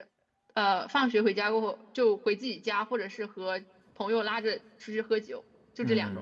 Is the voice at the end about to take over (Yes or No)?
Yes